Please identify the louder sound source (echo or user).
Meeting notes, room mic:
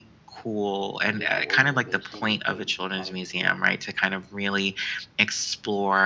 echo